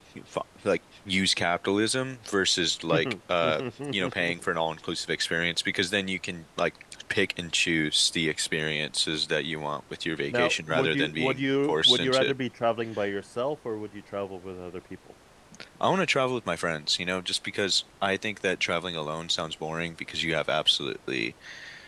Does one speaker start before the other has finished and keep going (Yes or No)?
Yes